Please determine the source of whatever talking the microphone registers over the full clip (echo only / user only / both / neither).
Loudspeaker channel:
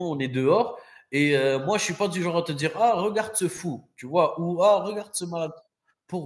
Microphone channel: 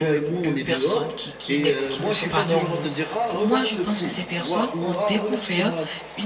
both